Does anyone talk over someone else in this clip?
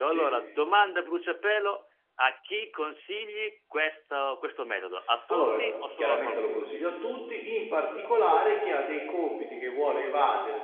Yes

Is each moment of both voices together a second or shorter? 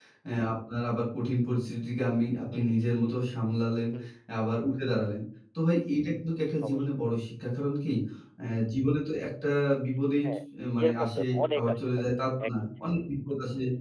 No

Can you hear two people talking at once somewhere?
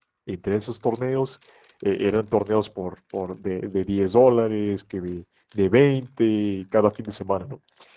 No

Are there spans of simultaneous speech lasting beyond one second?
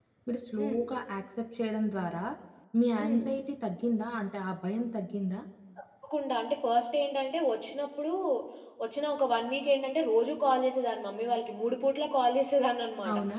No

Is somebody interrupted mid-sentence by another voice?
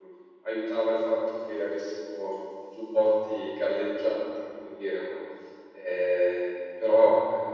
No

